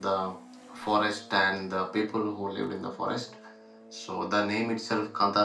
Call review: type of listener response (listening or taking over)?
listening